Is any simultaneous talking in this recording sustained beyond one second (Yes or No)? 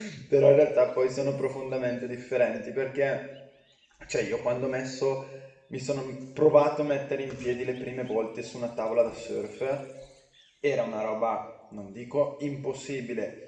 No